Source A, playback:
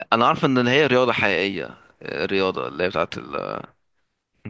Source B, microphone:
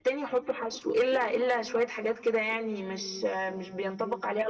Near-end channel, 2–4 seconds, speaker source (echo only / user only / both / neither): user only